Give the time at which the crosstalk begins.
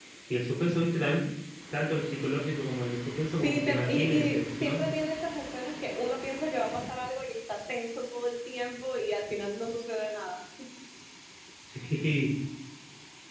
3 s

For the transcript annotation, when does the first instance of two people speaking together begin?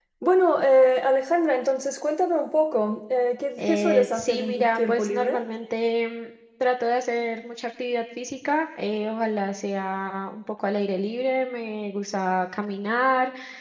4 s

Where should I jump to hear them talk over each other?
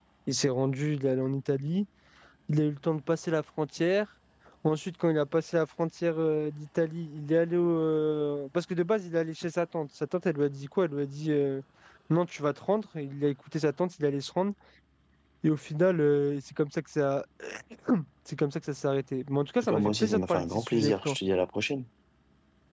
20 s

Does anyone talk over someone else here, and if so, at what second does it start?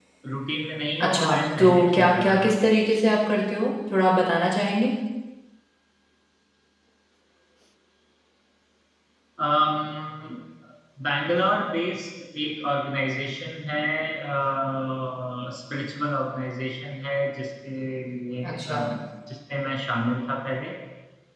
1 s

